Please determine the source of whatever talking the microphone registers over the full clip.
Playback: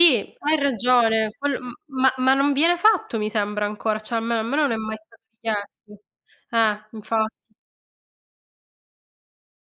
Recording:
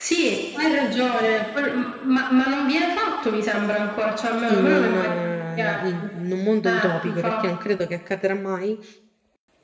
both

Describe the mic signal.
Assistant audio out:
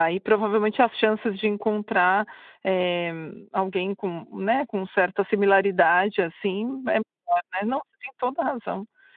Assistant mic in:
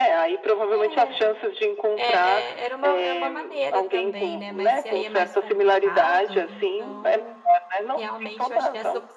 both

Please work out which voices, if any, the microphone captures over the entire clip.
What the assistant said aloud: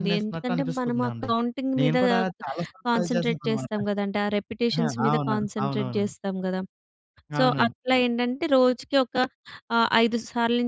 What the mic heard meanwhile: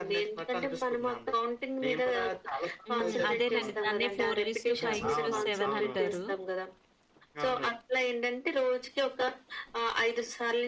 both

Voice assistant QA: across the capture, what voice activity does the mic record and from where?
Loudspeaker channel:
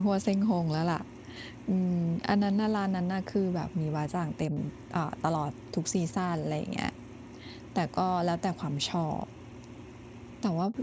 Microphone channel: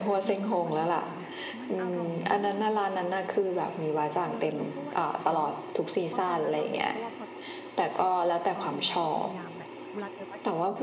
both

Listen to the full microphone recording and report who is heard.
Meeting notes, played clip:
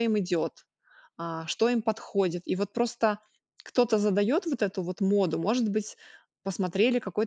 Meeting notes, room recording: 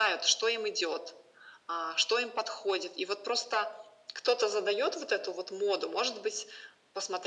echo only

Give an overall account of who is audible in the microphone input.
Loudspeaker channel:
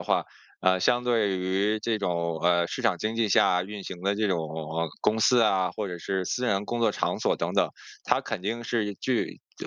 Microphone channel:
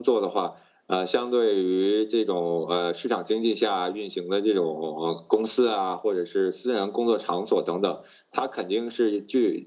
echo only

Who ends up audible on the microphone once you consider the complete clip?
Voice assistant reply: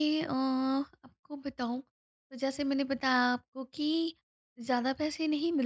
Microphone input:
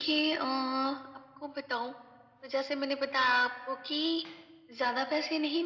echo only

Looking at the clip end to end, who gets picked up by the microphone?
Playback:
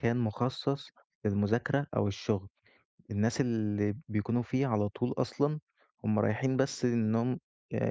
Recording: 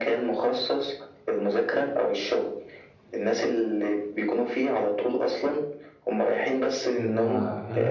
both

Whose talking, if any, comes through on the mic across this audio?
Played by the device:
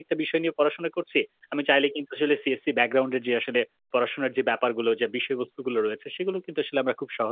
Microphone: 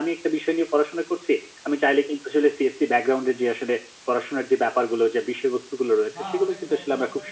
both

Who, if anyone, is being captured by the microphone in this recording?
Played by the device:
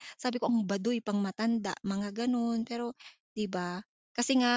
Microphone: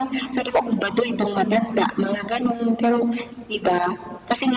echo only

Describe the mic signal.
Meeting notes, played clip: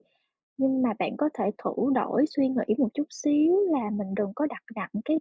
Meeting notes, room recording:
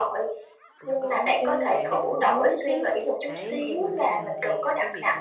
both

